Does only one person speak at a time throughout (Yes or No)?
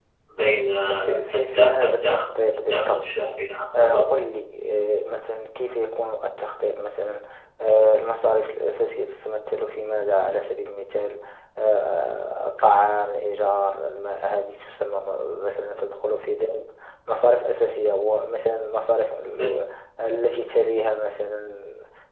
No